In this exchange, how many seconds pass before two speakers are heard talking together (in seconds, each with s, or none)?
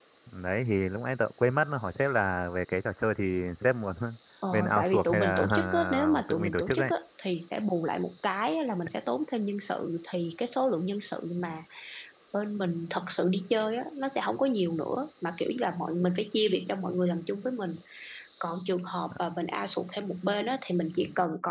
4.5 s